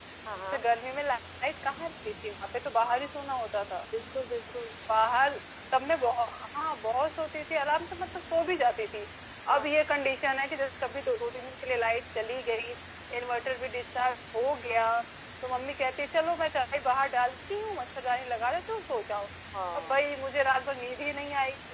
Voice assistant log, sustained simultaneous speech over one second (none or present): none